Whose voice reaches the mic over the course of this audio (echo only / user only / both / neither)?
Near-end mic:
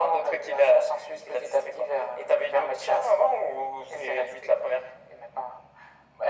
echo only